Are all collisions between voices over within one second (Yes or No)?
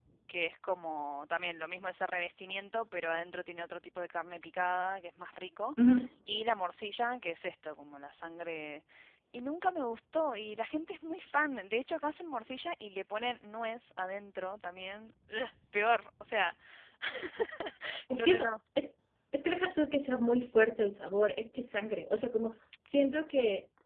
Yes